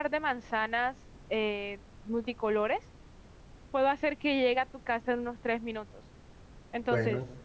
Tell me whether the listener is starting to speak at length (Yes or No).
Yes